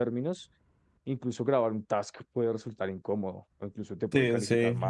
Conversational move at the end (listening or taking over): taking over